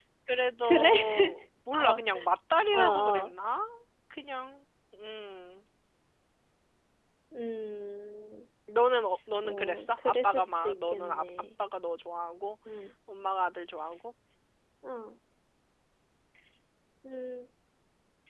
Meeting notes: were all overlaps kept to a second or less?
No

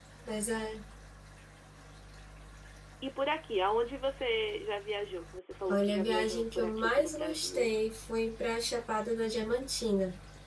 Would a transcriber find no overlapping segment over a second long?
No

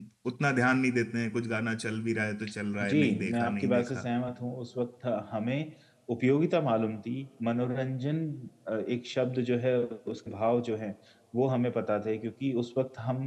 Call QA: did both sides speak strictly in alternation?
No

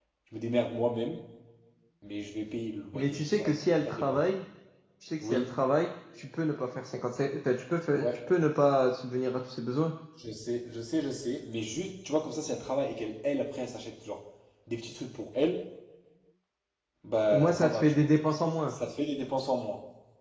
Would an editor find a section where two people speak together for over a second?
Yes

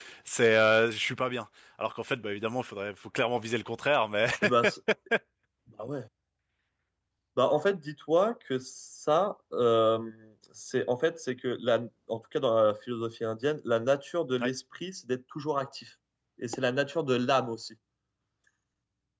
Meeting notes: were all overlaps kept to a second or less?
Yes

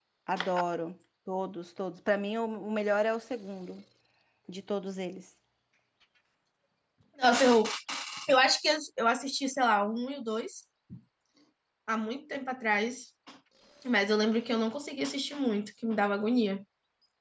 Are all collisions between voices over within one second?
Yes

